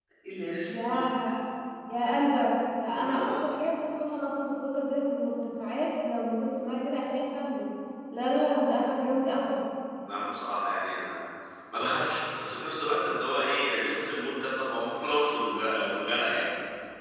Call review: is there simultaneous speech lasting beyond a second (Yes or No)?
No